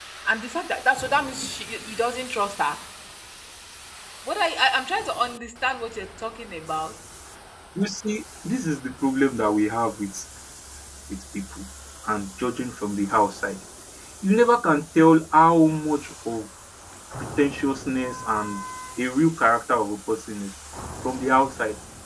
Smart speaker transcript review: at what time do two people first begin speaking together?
none

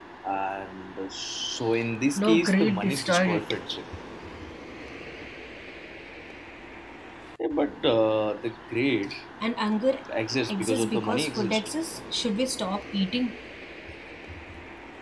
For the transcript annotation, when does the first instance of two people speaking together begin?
2 s

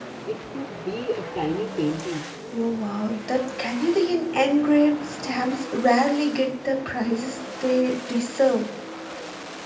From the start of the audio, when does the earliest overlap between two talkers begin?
none

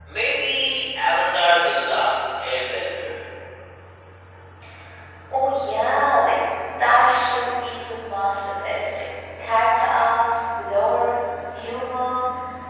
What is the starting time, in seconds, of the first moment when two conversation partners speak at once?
none

